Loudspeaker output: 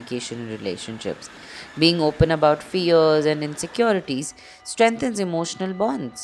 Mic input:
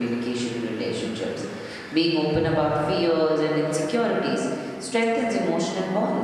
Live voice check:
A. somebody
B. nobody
B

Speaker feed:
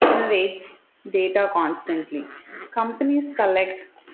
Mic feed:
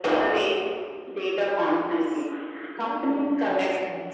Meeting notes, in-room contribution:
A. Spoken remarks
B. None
A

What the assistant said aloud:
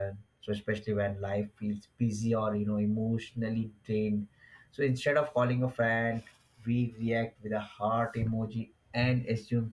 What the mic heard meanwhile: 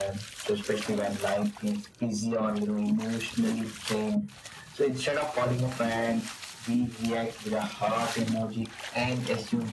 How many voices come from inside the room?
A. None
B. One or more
A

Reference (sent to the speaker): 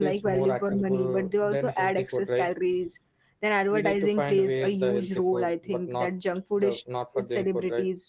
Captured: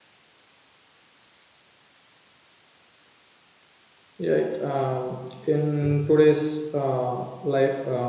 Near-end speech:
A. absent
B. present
B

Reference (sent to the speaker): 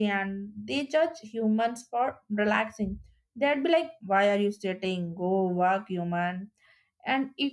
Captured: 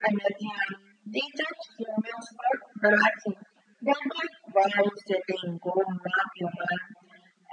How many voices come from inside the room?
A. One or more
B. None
B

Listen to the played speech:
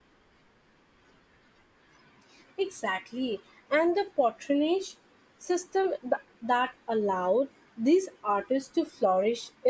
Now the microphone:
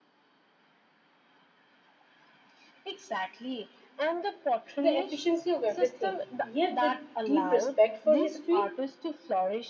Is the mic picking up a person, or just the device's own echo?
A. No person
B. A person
B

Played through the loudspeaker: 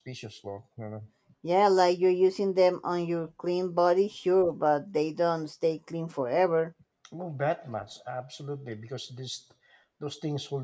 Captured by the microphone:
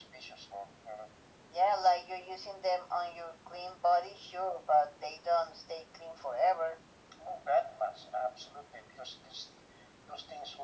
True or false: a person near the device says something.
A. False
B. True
A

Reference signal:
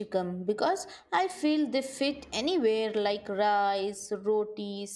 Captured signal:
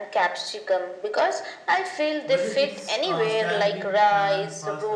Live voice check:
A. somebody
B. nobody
A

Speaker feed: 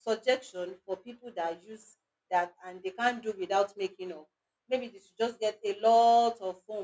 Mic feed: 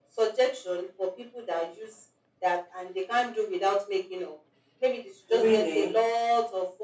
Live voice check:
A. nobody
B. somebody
B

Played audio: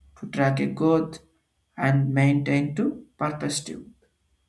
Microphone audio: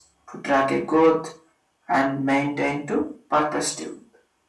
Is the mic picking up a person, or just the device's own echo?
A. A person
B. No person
B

